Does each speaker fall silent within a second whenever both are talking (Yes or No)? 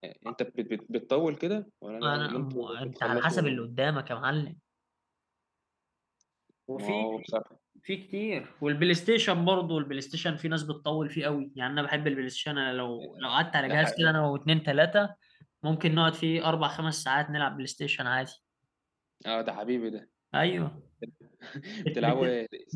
No